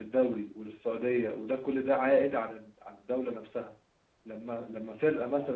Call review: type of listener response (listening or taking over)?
listening